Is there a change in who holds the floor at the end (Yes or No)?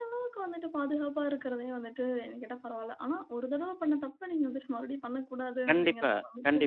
Yes